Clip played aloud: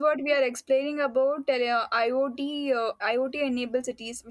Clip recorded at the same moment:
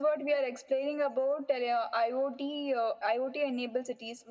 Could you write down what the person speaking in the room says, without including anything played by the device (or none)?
none